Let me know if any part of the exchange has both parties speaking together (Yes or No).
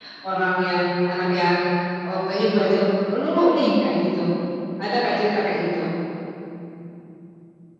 No